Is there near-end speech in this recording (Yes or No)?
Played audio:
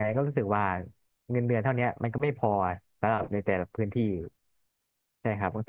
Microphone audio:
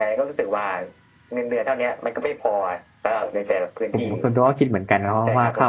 Yes